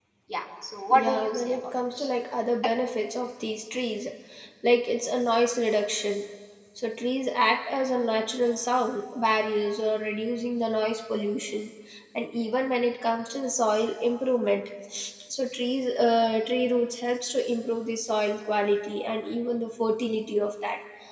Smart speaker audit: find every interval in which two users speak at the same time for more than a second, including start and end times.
0.9-2.1

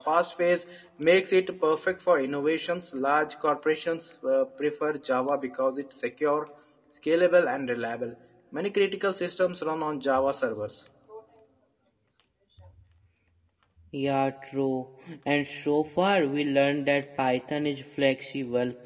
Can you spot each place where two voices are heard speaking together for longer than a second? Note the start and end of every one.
none

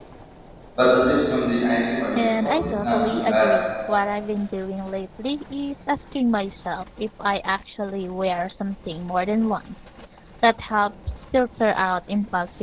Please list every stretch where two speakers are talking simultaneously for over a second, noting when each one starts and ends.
2.1-3.5

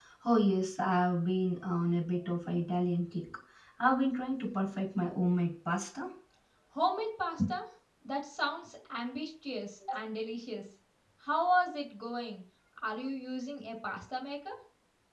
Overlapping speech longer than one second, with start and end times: none

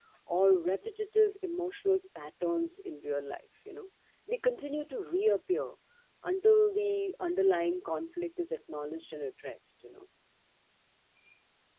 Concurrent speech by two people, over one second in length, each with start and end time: none

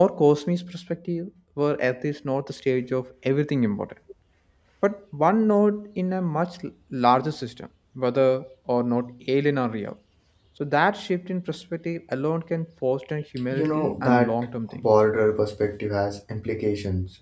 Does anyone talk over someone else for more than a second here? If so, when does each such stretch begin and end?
13.5-14.8

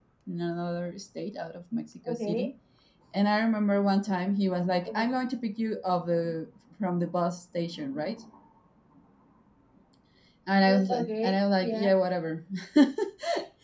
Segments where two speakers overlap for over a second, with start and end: 10.6-11.8

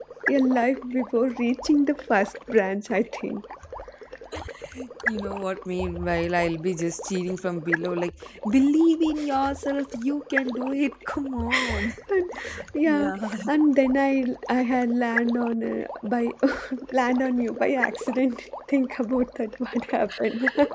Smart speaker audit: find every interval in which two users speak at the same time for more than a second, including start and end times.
none

